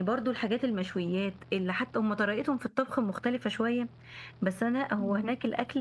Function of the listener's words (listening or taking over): listening